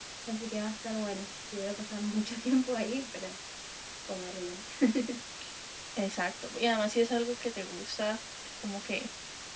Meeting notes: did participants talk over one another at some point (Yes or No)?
No